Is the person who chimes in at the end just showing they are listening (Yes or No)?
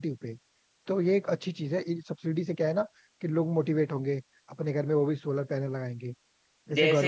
No